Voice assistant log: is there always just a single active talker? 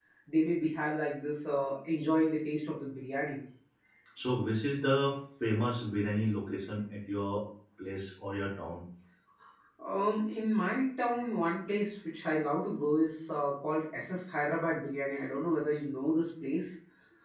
Yes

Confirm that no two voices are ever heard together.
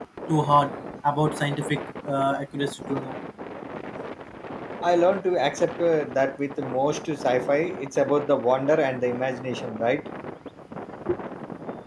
Yes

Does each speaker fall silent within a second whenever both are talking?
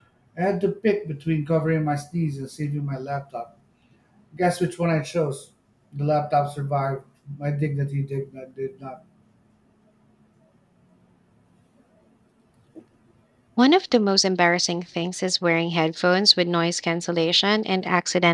Yes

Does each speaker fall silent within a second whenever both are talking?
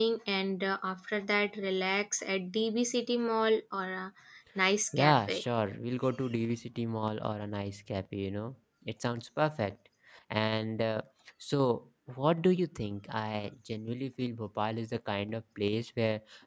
Yes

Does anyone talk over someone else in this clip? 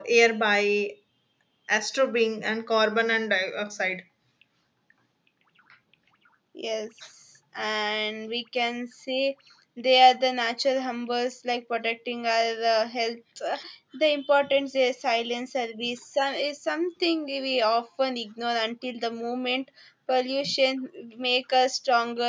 No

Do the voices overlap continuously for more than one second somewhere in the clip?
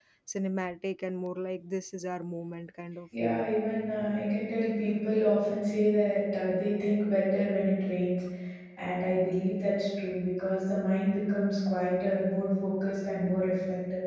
No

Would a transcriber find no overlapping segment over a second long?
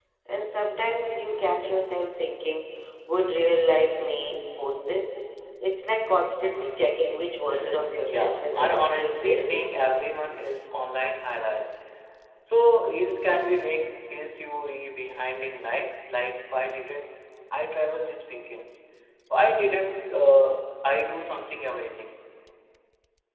No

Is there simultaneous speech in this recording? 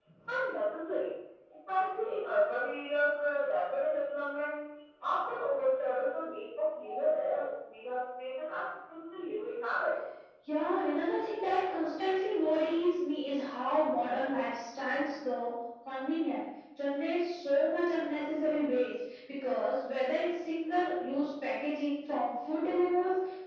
No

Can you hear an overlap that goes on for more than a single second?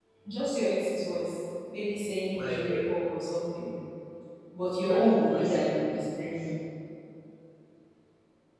Yes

